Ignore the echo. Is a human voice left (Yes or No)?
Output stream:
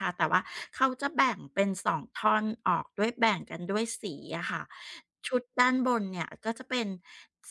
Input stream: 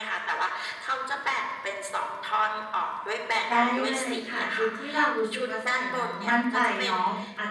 Yes